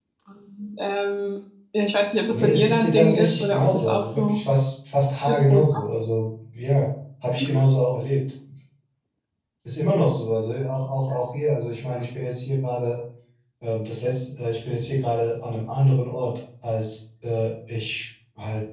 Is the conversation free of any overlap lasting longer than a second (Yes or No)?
No